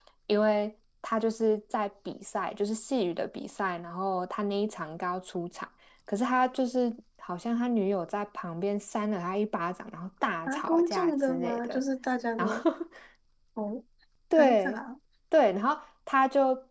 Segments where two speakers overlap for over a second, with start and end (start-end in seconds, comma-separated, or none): 10.5-11.8